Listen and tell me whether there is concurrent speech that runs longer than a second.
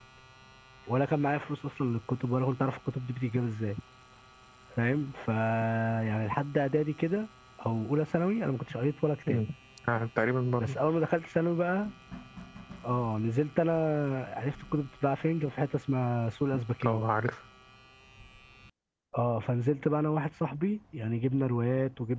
No

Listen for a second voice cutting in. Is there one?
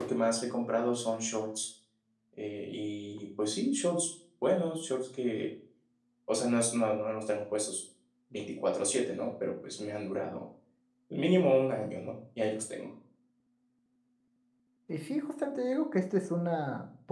No

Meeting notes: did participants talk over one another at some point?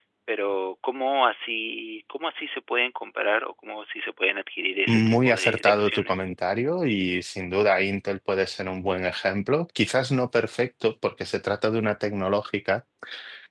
Yes, from 4.9 s

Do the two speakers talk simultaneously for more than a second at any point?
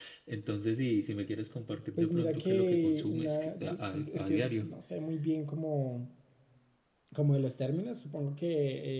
Yes, from 2.0 s

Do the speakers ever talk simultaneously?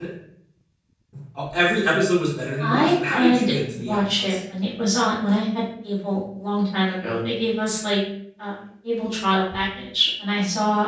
Yes, from 2.6 s

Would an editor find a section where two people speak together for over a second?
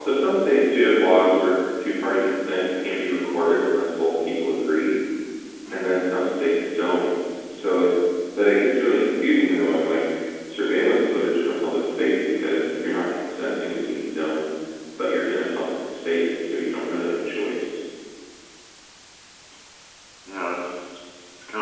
No

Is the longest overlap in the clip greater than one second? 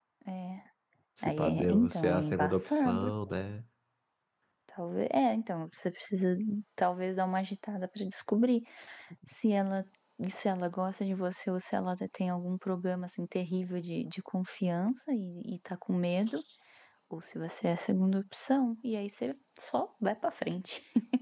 Yes, from 1.2 s

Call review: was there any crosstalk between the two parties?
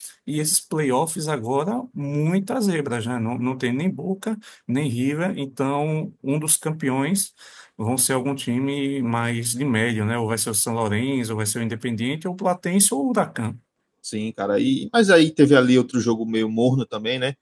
No

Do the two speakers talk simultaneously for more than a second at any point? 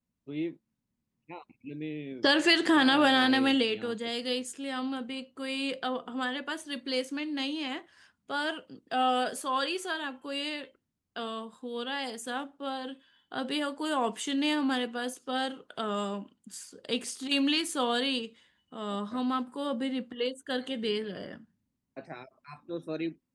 Yes, from 2.8 s

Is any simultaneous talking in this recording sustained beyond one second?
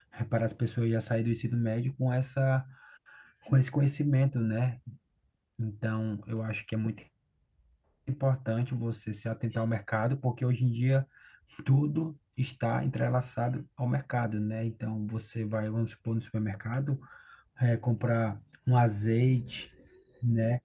No

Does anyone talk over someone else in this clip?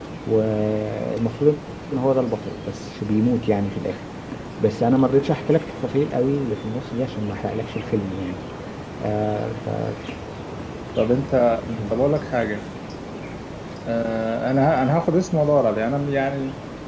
No

